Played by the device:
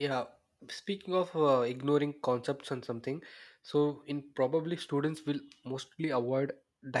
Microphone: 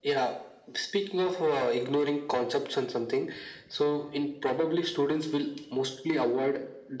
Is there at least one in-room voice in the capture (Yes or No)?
No